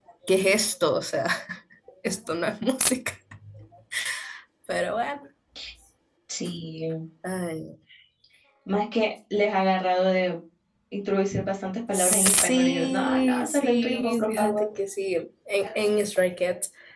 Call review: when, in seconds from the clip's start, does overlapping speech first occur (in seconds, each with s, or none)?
11.9 s